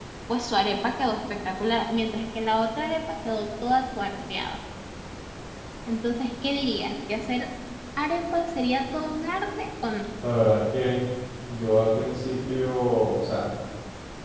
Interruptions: none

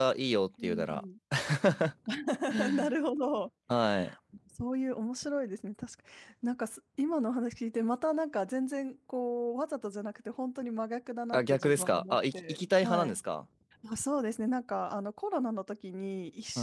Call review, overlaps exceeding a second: present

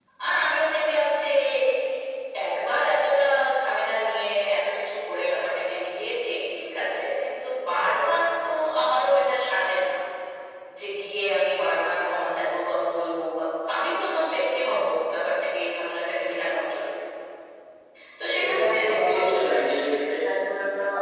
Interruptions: present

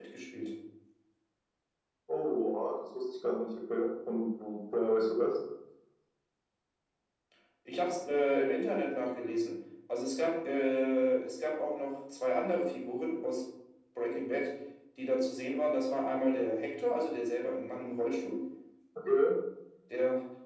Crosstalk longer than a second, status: none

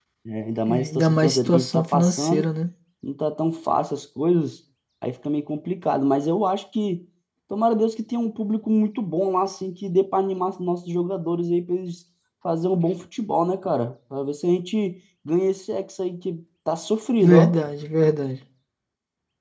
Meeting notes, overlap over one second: present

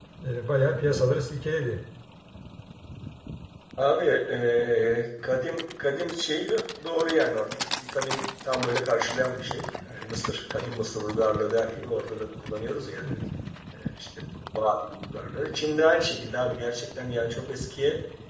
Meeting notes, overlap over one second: none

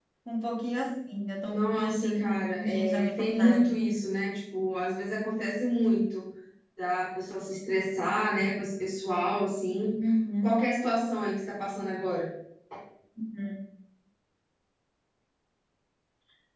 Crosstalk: present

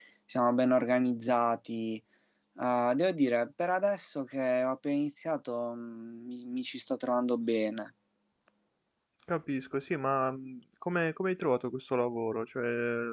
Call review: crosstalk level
none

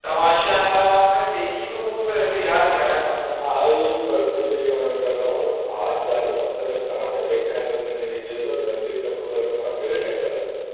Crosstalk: none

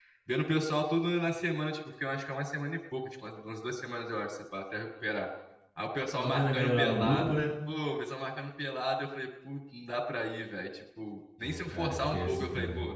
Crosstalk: present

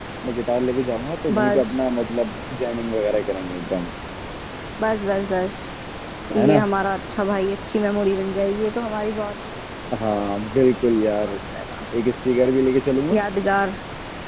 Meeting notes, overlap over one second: none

